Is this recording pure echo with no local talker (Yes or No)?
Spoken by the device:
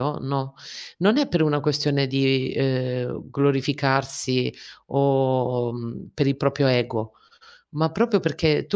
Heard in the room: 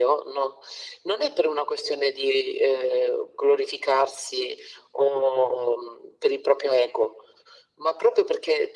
Yes